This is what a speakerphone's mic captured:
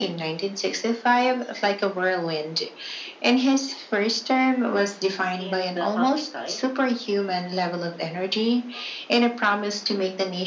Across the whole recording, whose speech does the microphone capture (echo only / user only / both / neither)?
both